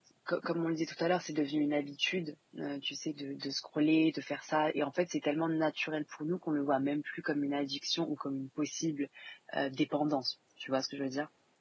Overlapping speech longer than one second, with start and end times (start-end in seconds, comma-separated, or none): none